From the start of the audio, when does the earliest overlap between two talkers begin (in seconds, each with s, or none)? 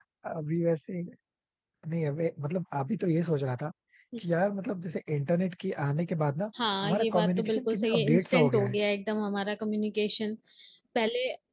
6.8 s